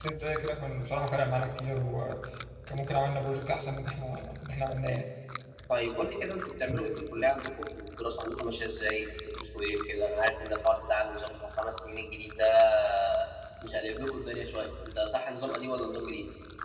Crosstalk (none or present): none